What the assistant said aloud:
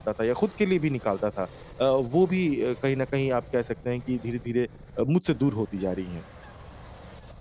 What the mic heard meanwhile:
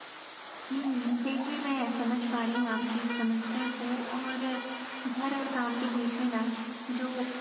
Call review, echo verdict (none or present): none